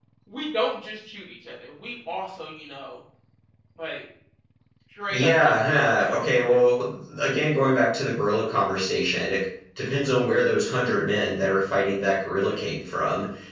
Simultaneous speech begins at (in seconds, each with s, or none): 5.1 s